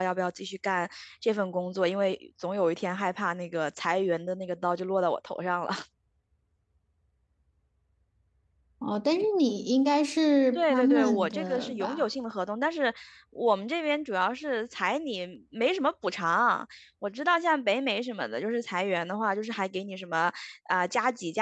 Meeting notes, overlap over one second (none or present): present